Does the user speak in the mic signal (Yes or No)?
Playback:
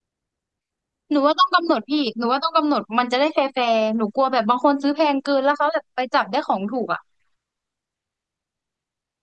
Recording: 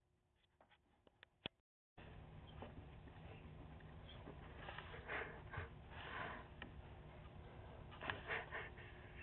No